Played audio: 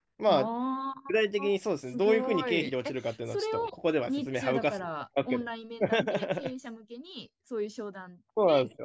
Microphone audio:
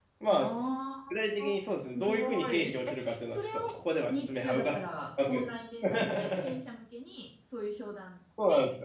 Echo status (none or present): present